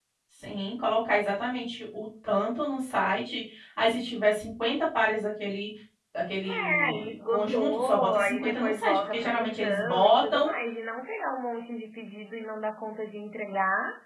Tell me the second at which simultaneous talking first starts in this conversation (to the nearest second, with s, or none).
6 s